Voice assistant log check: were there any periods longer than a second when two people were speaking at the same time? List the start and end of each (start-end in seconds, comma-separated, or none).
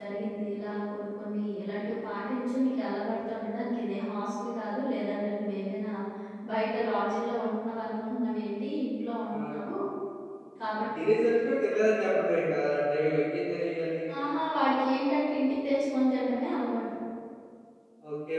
none